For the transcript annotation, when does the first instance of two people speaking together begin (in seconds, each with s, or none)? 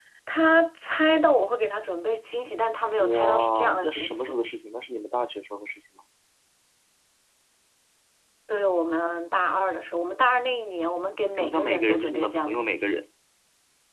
3.0 s